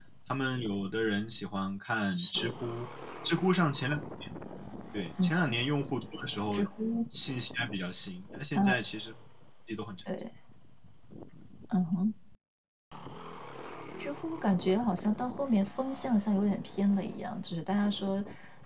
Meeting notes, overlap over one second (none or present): none